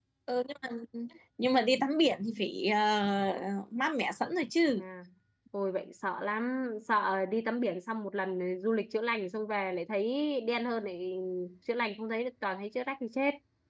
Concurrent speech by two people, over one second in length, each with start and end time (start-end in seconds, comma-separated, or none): none